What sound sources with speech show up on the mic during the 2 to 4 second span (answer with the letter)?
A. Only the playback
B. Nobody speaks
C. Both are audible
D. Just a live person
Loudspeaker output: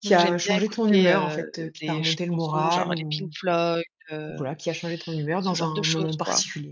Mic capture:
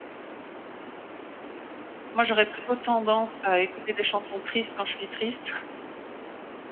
D